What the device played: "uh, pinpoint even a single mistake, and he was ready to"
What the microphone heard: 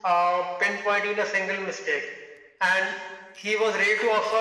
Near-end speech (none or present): none